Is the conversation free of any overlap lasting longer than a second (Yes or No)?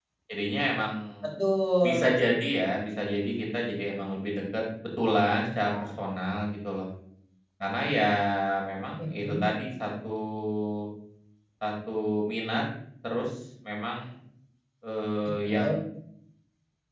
Yes